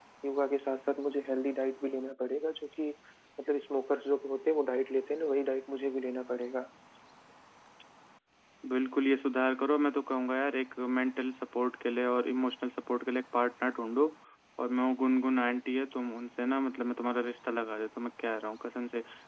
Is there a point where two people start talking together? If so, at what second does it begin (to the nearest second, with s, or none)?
none